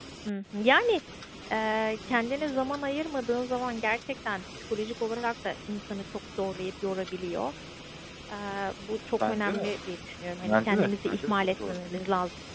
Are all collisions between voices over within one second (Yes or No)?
No